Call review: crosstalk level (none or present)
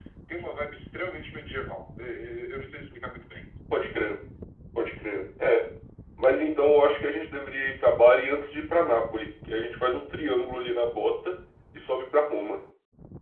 none